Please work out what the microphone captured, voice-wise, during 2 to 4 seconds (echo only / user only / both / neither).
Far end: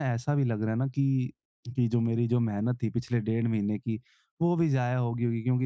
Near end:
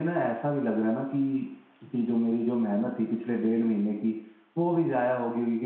echo only